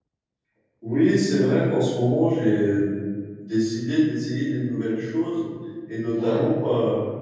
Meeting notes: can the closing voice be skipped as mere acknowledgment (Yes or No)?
Yes